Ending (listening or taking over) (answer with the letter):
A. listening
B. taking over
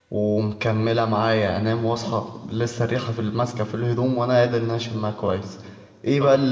A